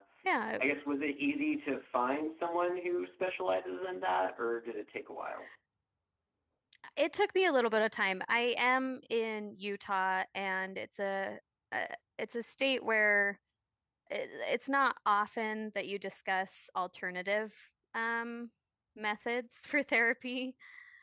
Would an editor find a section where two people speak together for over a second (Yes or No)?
No